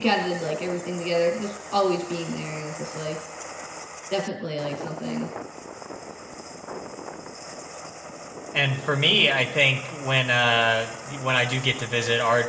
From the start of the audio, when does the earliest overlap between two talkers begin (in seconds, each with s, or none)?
none